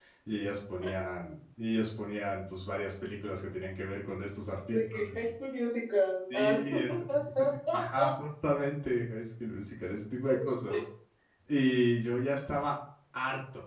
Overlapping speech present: Yes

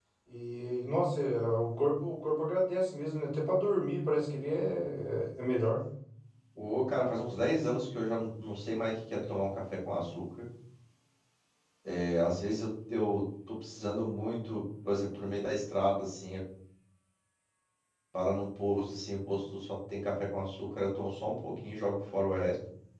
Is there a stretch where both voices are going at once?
No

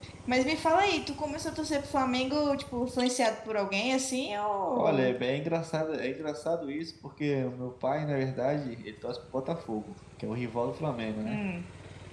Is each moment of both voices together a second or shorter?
Yes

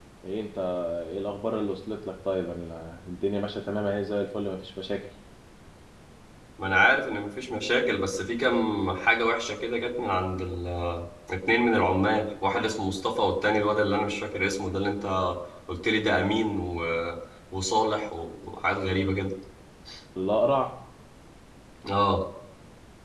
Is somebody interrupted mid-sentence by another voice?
No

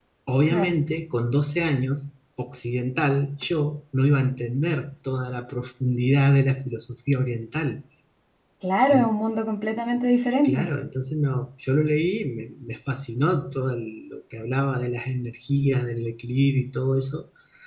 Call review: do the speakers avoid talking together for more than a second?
Yes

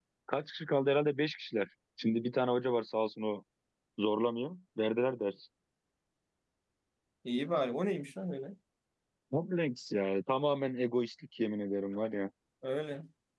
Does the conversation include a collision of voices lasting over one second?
No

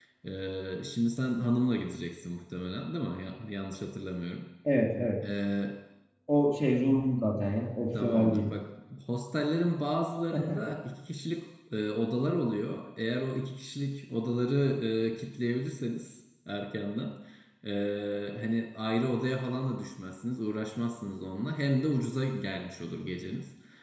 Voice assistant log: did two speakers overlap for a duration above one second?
No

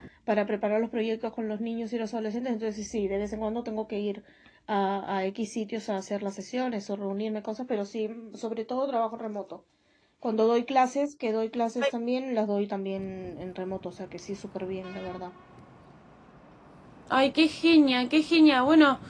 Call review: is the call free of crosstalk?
Yes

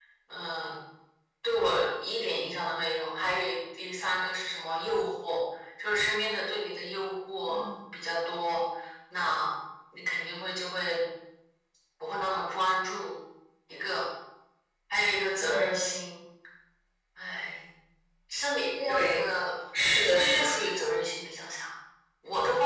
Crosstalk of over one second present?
No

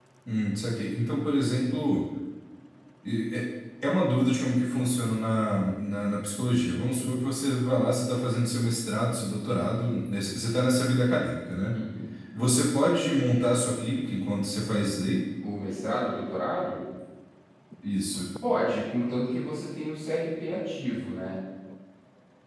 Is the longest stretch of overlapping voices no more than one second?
Yes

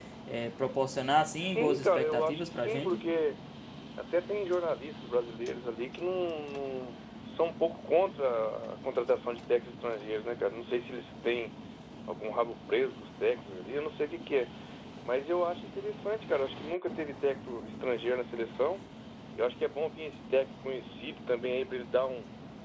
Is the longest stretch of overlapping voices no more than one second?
No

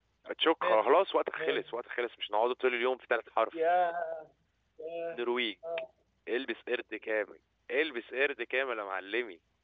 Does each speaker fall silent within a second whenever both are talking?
Yes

